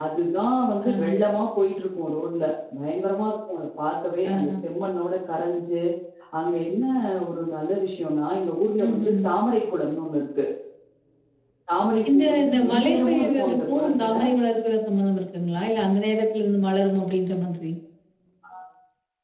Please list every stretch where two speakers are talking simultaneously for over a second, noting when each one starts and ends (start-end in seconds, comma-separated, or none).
12.1-14.1